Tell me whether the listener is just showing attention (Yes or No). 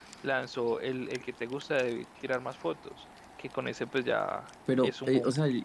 No